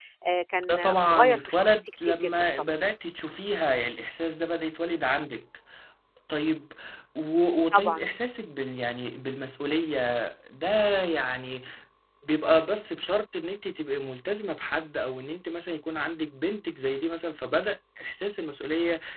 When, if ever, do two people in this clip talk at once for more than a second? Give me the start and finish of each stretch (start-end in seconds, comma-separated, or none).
0.7-2.7